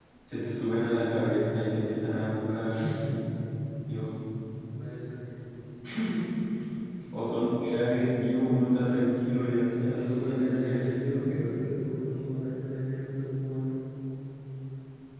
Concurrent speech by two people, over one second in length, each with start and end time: 9.9-11.3

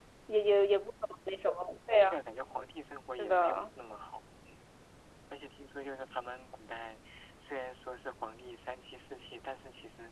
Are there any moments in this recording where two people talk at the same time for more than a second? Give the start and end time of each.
none

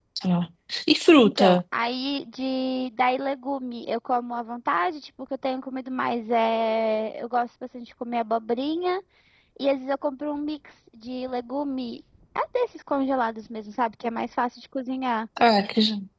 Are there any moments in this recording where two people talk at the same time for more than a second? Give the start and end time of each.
none

